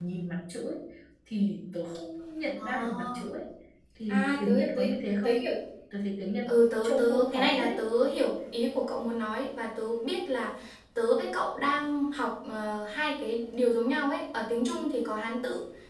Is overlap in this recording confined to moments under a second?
No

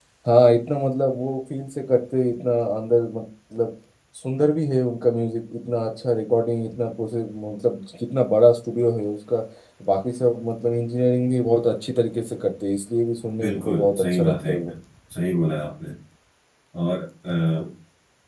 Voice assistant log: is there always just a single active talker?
No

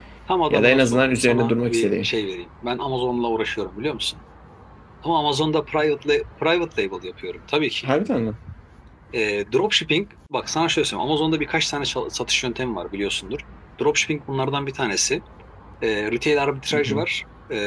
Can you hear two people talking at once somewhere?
Yes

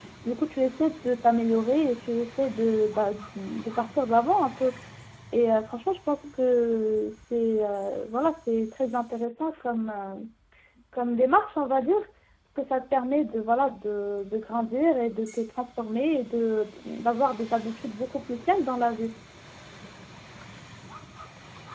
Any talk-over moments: No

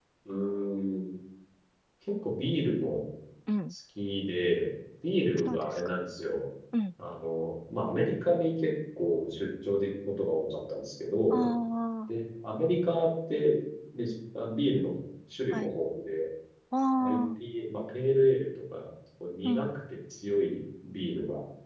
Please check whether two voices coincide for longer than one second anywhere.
No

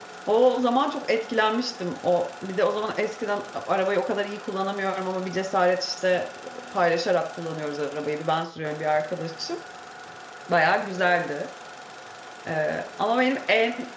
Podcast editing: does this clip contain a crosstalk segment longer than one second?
No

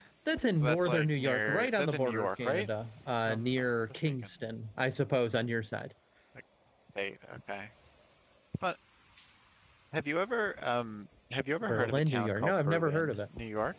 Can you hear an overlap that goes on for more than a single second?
Yes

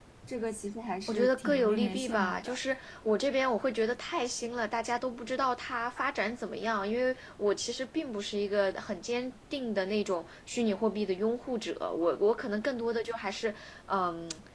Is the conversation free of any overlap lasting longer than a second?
No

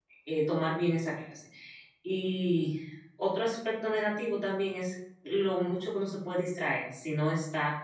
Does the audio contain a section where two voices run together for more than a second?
No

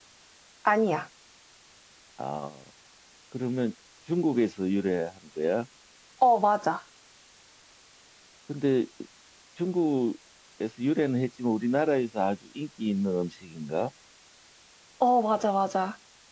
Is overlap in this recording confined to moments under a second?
Yes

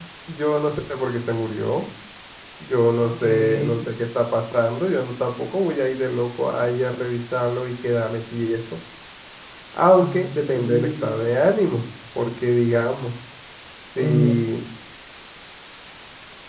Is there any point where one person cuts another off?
Yes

